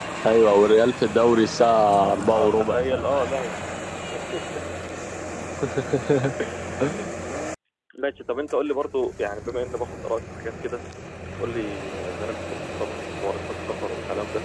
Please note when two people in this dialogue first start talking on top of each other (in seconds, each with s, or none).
2.0 s